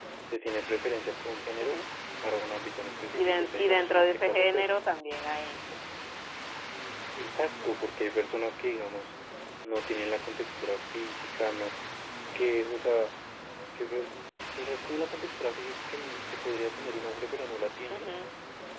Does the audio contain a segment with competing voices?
Yes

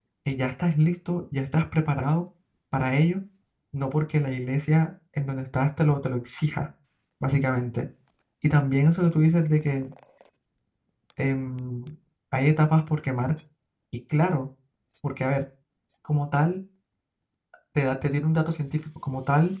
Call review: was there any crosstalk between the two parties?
No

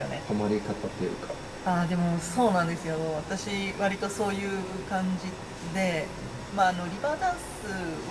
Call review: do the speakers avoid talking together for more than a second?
Yes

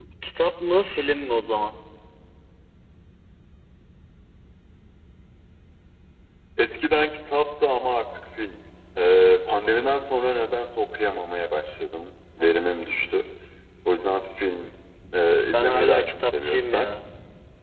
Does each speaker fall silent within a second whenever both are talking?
No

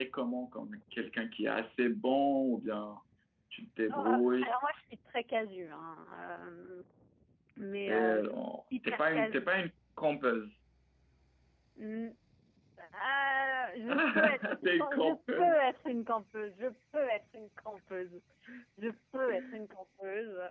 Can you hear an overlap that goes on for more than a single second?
Yes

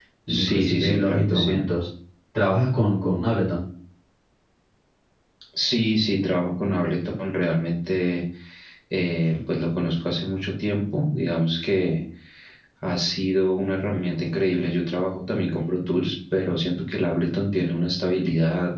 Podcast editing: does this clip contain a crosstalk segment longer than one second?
Yes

